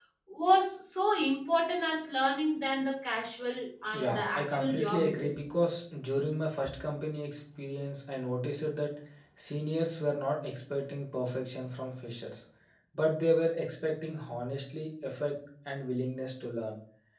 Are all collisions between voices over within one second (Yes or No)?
No